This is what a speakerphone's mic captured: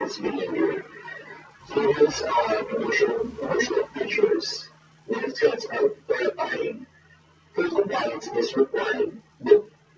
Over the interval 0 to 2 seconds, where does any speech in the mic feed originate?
echo only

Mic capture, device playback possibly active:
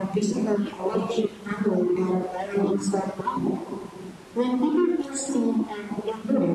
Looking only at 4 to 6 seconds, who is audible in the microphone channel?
echo only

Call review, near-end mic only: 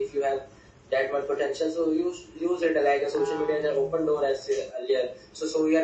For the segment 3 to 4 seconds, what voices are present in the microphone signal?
both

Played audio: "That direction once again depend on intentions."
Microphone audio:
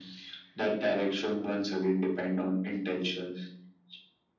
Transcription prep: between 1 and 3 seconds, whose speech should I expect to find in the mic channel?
echo only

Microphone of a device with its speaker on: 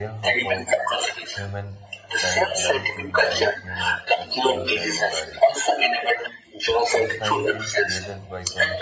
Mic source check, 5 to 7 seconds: both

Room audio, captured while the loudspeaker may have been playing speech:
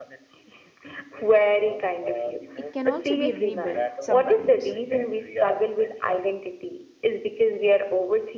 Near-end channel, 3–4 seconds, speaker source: both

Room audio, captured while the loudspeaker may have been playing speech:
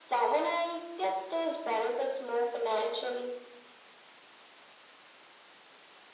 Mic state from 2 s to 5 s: echo only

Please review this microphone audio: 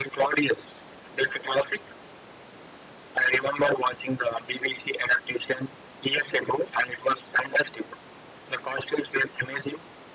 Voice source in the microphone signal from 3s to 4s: echo only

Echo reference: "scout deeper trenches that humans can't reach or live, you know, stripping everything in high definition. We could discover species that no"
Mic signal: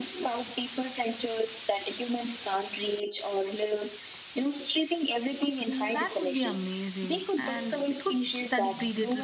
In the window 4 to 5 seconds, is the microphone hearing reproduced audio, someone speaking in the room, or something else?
echo only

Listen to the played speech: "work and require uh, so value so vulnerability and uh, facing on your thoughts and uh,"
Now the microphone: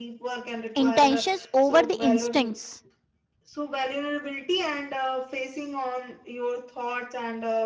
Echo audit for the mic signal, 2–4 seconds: both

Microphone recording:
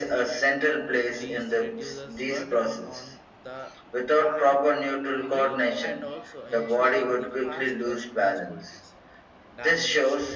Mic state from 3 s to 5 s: both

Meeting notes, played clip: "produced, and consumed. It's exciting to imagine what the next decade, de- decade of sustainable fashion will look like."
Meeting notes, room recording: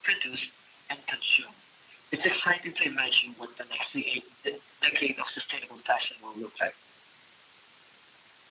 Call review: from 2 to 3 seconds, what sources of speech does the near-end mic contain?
echo only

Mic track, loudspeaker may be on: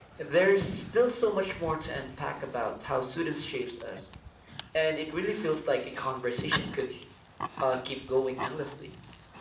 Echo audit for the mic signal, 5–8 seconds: echo only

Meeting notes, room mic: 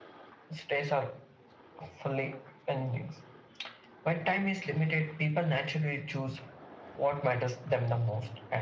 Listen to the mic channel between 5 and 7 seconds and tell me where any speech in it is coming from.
echo only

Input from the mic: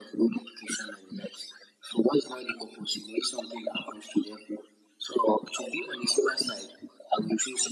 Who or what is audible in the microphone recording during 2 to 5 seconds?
echo only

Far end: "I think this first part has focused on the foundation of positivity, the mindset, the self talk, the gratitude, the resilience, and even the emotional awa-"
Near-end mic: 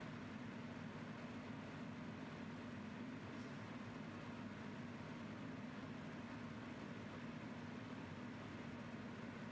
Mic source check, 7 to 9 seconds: neither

